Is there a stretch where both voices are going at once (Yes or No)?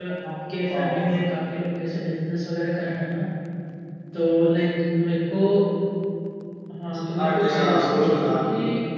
Yes